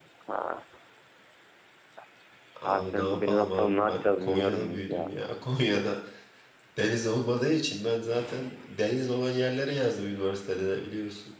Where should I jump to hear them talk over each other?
2.6 s

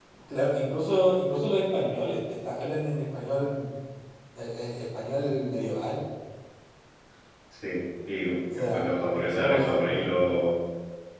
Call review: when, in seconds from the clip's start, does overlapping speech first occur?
8.5 s

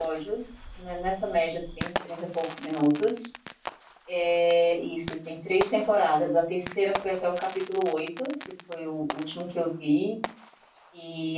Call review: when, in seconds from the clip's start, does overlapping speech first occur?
none

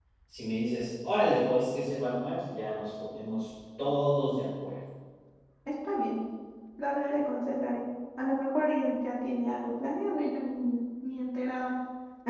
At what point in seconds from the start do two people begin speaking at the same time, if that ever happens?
none

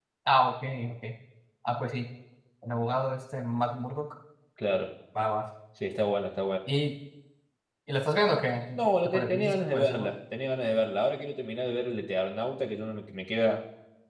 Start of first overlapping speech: 8.8 s

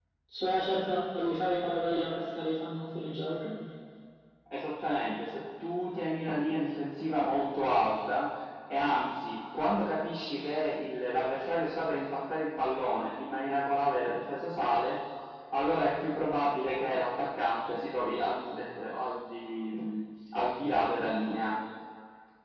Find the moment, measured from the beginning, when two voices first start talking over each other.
none

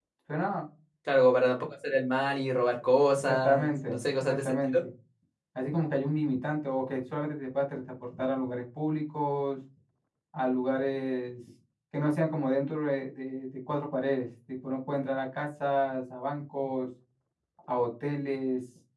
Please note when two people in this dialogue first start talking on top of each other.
3.2 s

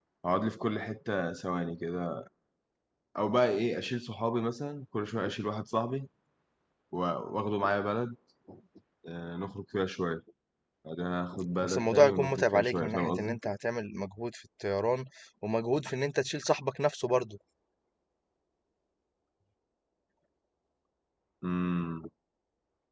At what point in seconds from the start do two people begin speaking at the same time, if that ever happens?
11.6 s

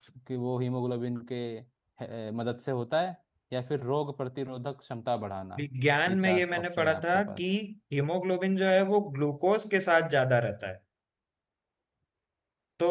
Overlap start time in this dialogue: 6.1 s

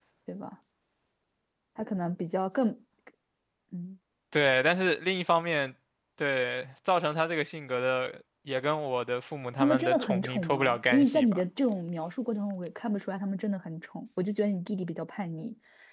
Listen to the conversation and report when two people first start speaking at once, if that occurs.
9.6 s

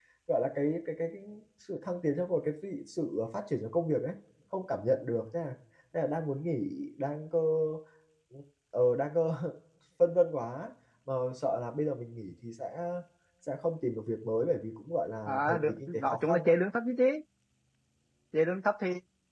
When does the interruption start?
15.3 s

